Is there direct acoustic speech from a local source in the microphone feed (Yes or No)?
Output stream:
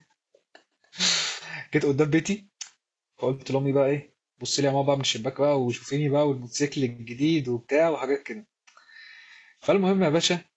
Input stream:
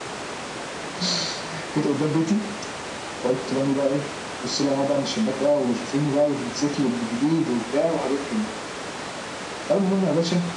No